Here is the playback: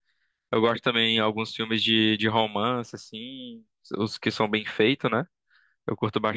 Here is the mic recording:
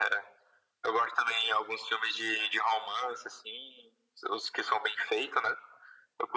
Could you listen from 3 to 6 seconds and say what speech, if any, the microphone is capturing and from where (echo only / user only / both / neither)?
echo only